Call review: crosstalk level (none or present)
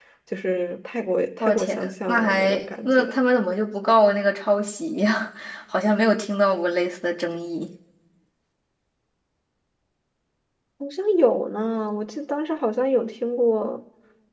present